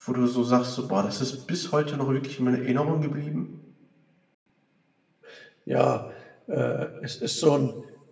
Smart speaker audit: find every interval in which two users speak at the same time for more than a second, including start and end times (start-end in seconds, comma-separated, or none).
none